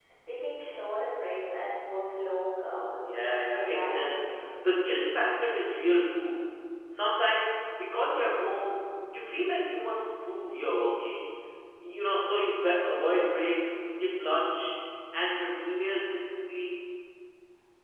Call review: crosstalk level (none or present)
present